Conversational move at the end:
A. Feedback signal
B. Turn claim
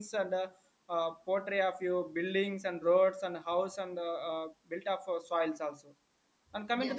A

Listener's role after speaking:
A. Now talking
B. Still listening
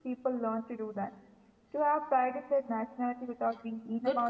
A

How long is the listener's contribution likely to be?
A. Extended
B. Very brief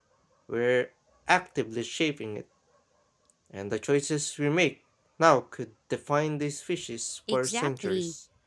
A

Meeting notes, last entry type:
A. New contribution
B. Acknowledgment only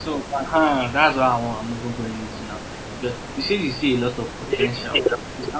B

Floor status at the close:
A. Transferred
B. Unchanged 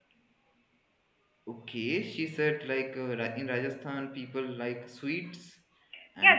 A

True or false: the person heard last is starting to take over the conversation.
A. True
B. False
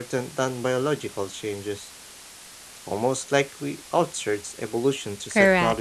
A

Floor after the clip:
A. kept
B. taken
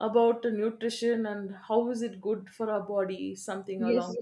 B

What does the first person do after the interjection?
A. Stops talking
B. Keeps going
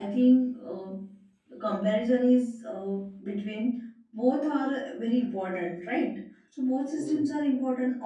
B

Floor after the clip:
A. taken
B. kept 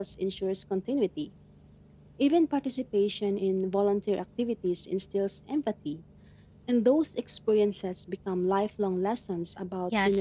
A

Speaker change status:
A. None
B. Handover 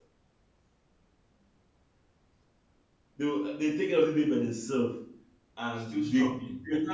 A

